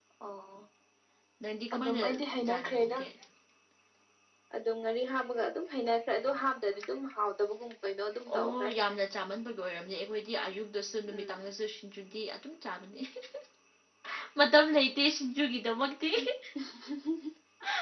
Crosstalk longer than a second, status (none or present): none